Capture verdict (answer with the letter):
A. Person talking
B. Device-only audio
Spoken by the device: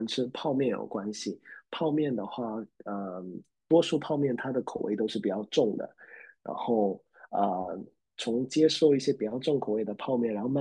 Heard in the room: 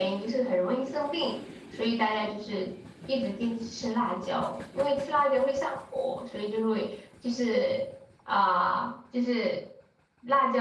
A